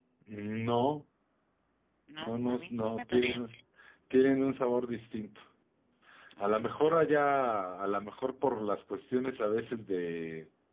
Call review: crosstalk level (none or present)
present